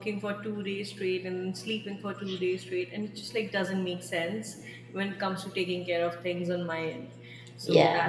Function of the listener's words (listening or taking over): listening